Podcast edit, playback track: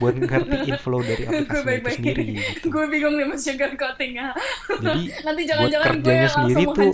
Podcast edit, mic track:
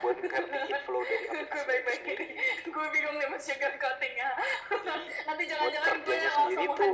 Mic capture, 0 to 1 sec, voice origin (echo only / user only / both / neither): echo only